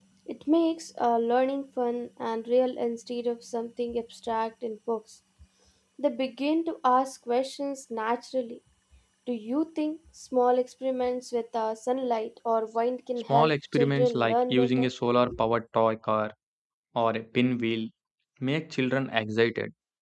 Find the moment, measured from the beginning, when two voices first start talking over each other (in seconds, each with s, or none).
13.3 s